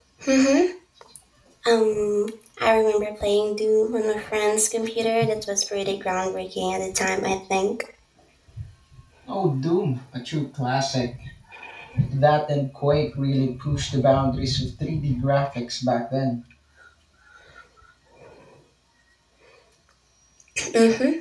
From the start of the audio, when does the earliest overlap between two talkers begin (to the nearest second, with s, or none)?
none